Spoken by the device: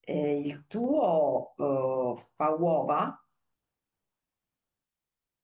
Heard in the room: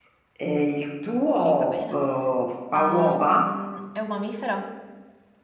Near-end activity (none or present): present